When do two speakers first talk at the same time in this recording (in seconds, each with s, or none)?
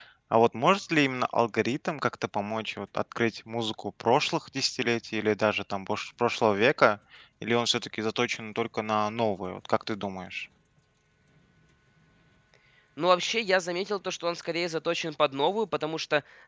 none